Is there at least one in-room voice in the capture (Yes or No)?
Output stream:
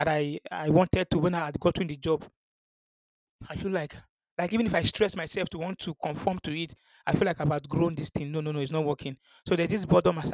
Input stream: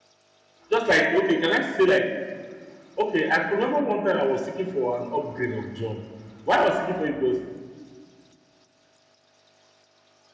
Yes